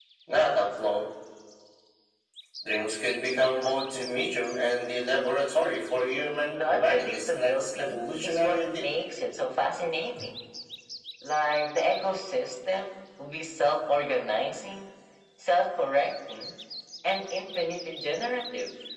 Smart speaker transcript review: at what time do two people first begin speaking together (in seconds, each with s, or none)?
6.5 s